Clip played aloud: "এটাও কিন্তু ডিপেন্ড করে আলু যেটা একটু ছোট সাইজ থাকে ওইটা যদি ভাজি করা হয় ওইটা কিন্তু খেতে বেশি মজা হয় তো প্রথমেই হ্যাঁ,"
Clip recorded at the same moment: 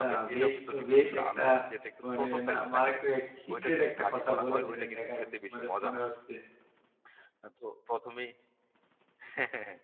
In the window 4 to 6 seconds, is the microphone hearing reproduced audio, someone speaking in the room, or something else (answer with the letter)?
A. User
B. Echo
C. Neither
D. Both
D